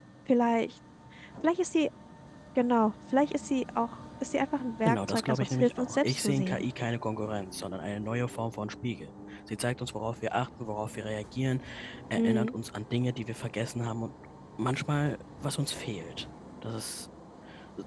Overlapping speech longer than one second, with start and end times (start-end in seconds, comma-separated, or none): 4.8-6.7